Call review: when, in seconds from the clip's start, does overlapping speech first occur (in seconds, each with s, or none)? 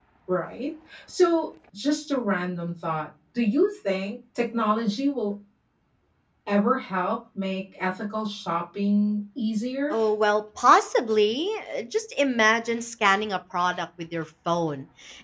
none